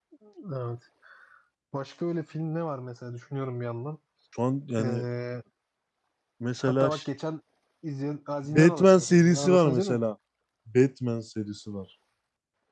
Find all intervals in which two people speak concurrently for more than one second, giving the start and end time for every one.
8.4-10.0

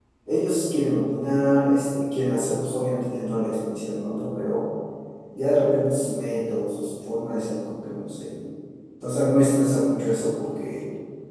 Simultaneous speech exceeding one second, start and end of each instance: none

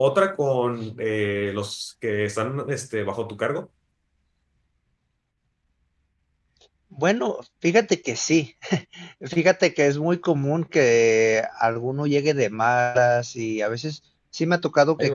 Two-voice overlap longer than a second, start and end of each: none

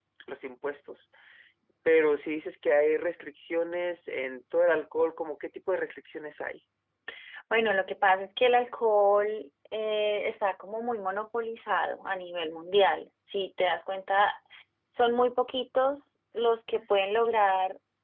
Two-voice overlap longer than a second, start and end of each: none

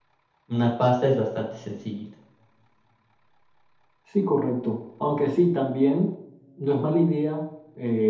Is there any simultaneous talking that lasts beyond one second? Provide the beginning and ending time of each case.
none

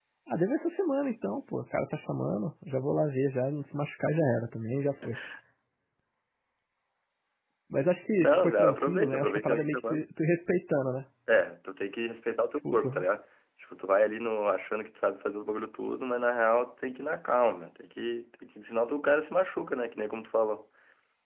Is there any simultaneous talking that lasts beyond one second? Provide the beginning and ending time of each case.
8.2-10.0

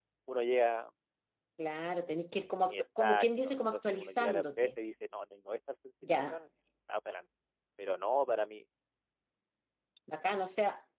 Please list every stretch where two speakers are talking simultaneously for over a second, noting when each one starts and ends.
2.7-4.7

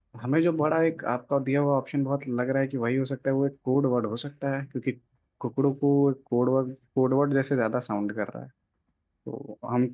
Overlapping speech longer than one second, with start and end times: none

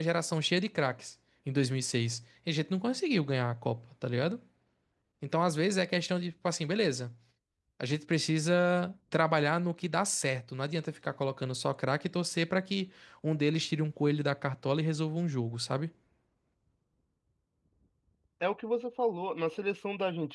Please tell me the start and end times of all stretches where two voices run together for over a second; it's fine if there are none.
none

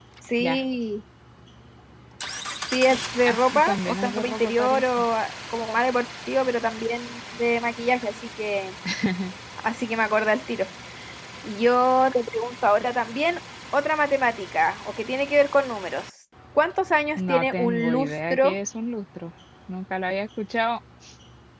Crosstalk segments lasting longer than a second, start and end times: 3.2-5.0, 17.2-18.6

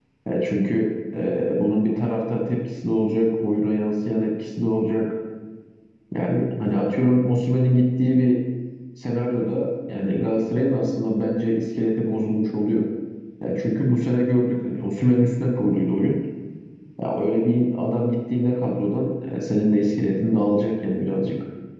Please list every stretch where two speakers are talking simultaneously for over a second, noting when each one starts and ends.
none

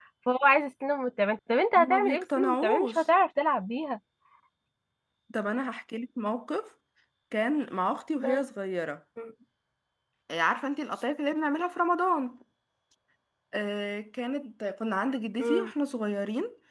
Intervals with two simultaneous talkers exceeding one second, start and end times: 1.8-3.0

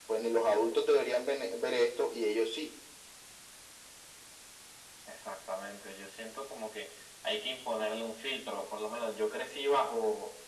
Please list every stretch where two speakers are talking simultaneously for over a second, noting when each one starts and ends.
none

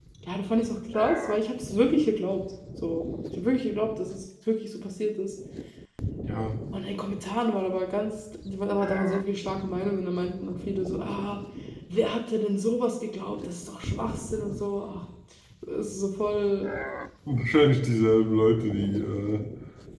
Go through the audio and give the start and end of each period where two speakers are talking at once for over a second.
none

